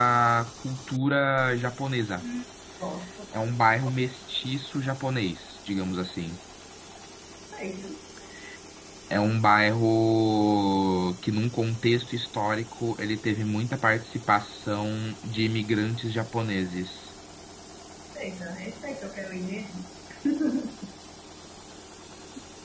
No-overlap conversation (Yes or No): Yes